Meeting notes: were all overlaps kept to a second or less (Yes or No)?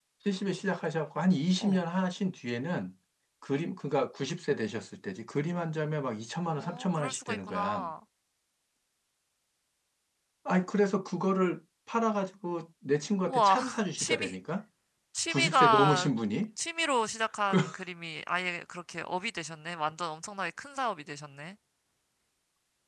No